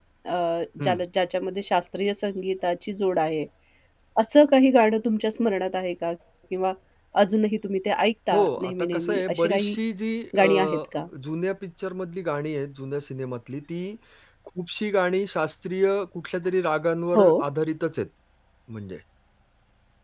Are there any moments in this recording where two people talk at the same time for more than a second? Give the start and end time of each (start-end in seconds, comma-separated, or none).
8.3-9.8